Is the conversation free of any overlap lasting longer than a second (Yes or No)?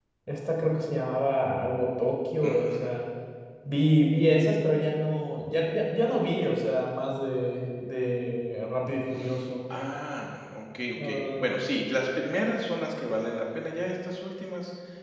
Yes